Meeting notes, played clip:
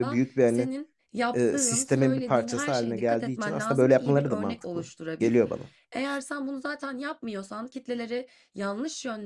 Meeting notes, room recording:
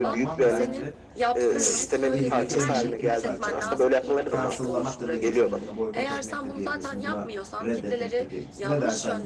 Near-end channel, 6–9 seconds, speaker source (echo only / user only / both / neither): both